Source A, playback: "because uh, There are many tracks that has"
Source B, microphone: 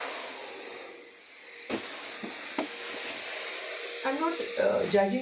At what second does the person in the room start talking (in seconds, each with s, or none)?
4.1 s